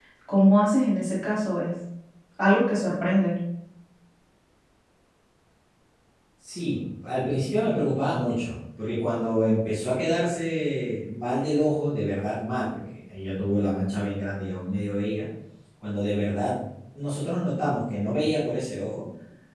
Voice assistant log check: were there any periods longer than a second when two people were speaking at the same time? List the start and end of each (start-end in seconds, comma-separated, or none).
none